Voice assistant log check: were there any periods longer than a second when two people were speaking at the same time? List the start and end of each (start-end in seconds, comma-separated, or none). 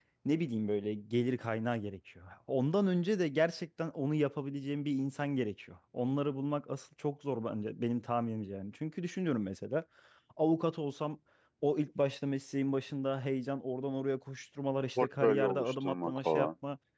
15.0-16.5